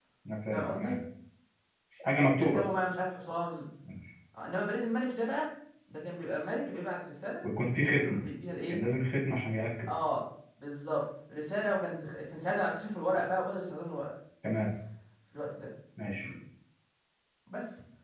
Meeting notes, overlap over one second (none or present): none